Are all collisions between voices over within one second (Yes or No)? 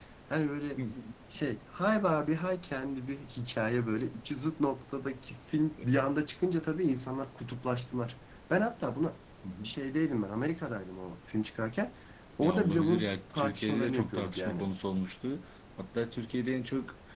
No